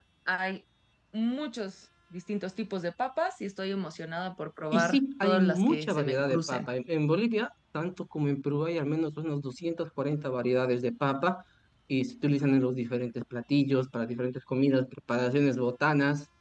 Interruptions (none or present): present